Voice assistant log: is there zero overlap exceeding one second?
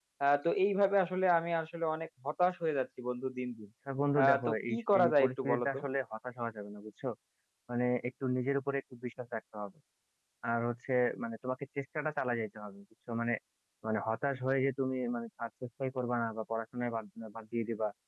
No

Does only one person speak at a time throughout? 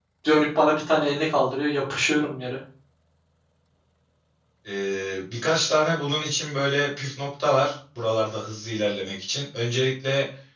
Yes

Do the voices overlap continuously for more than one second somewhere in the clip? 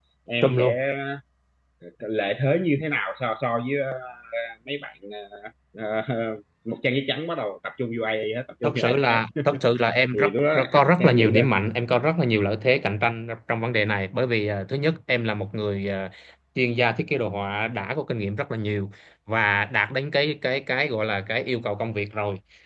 Yes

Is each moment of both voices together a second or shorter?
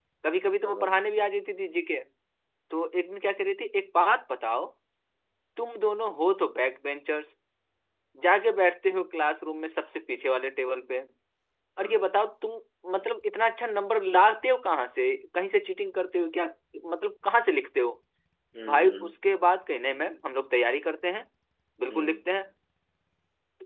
Yes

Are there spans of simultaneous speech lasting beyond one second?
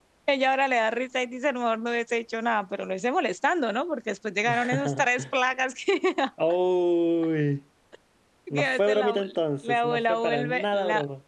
Yes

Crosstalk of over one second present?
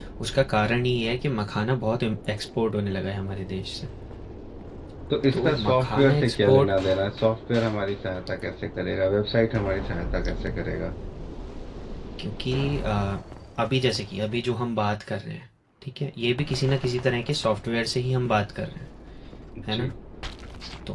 Yes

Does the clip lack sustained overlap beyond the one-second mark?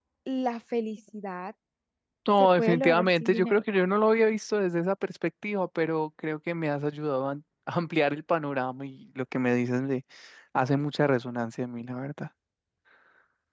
No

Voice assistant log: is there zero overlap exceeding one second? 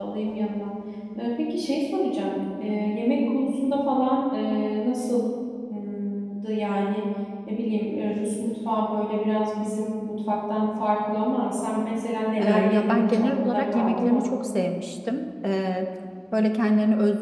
No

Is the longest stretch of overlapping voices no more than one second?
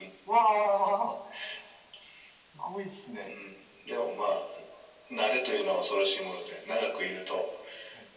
Yes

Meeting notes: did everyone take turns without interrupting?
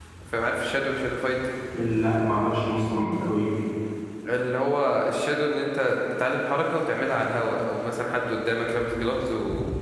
Yes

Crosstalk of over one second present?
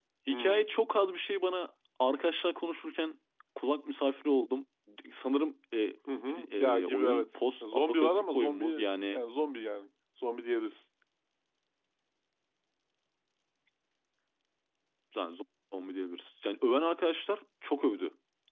Yes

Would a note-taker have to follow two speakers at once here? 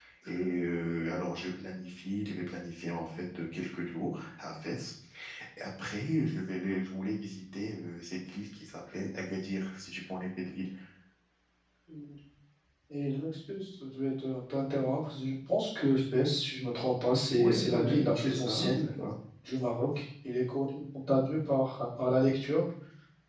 Yes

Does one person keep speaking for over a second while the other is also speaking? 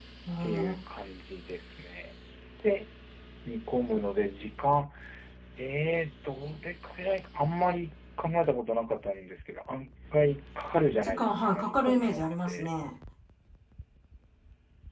Yes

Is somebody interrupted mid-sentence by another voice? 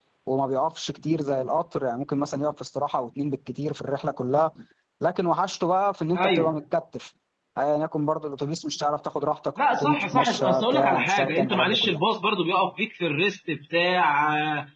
Yes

